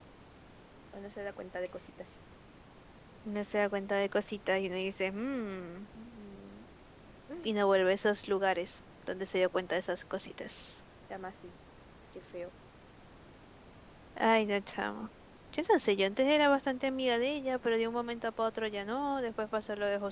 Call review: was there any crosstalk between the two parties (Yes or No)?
No